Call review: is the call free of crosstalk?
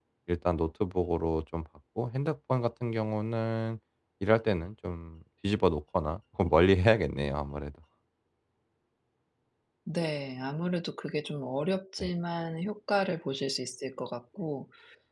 Yes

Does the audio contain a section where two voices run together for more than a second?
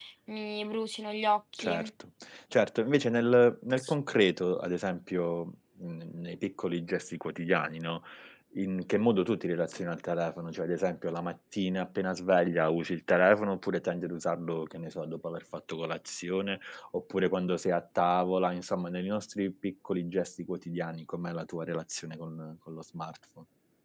No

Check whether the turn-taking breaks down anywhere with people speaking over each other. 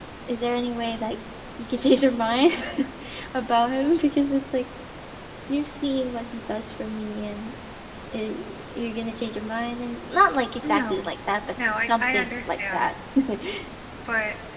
Yes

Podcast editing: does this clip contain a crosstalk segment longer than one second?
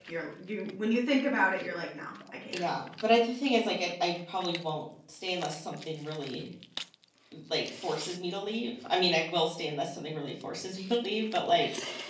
No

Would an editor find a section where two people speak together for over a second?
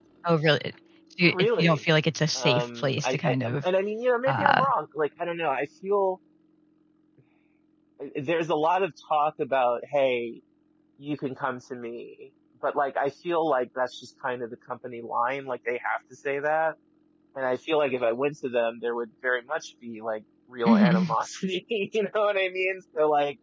Yes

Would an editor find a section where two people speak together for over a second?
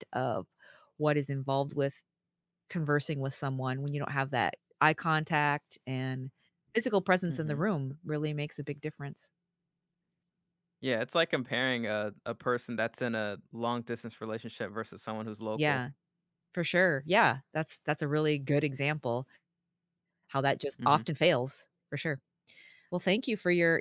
No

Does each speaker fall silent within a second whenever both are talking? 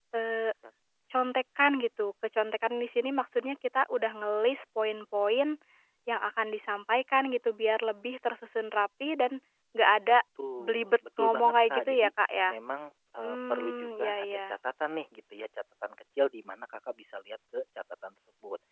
No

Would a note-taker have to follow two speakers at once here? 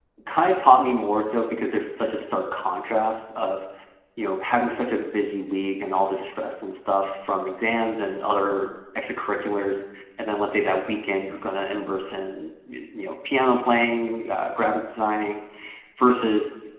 No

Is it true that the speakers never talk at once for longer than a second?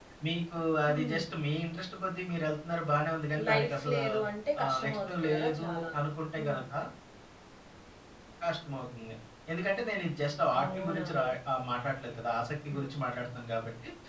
No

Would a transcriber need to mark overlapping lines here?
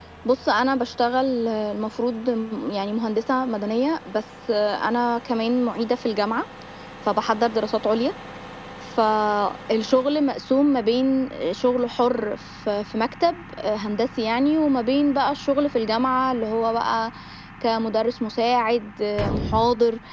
No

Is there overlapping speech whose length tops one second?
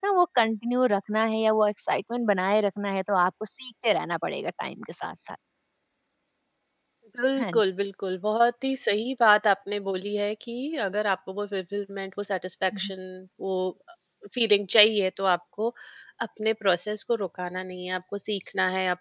No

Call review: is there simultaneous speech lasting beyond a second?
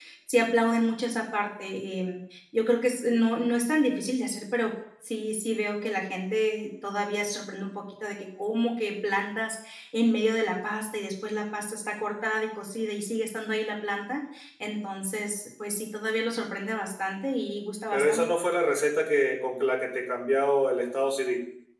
No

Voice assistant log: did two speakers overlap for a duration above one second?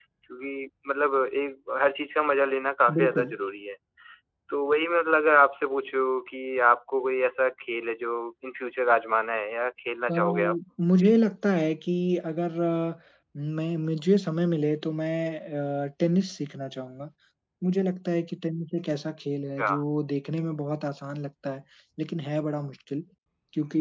No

